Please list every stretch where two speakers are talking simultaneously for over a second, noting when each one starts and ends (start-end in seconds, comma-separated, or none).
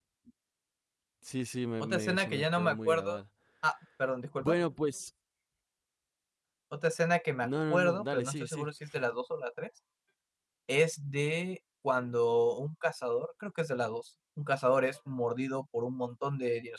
1.8-3.2, 7.4-8.7